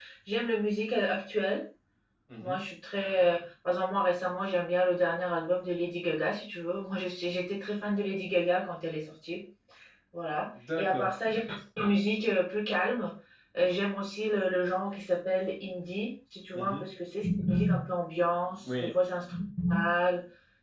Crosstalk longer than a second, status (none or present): none